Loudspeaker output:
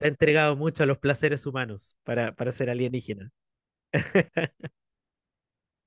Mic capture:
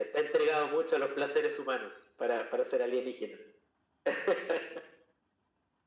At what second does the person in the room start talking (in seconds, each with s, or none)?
none